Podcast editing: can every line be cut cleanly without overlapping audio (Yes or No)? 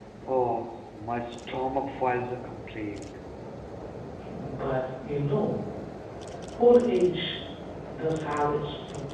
Yes